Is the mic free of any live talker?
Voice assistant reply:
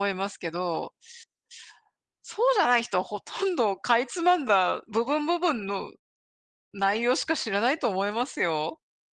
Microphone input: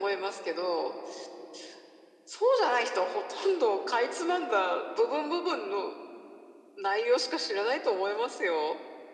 Yes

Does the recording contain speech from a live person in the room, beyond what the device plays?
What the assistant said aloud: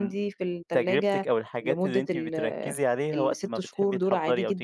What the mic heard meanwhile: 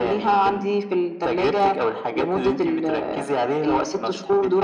No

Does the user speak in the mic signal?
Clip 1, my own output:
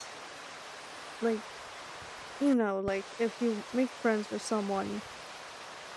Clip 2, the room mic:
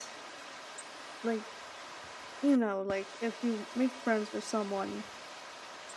No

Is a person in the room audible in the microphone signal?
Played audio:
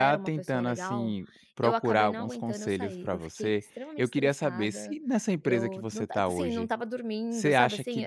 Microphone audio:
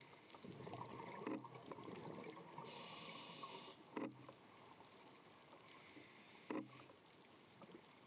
No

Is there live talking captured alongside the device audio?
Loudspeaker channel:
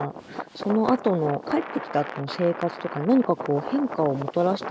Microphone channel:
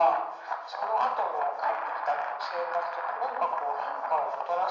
No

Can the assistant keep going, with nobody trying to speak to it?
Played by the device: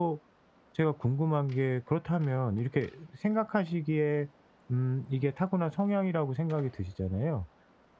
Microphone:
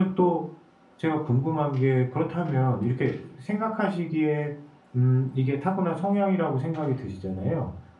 Yes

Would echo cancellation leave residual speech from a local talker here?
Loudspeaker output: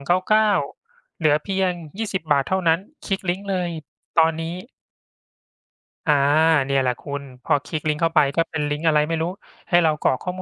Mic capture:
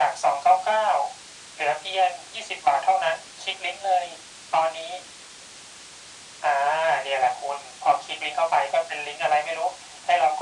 No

